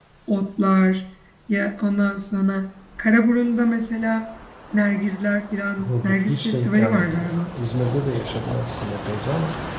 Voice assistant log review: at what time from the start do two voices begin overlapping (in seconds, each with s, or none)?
5.8 s